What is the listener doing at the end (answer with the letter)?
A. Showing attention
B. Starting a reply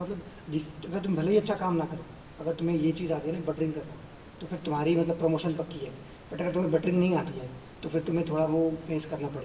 A